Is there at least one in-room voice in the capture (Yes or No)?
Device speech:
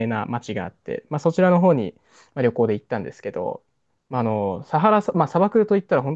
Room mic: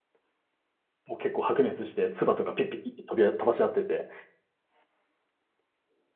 Yes